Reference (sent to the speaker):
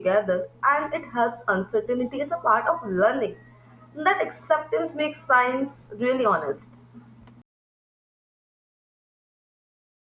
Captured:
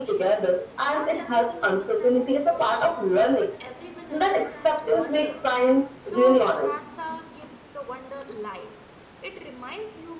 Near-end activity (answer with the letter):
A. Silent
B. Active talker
B